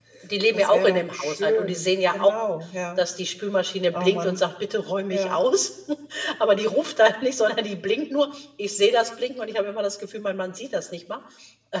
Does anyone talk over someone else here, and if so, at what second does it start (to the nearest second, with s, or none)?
1 s